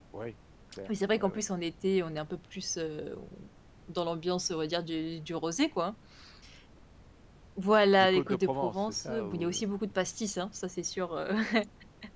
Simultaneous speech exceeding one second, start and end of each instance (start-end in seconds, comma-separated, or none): 8.0-9.5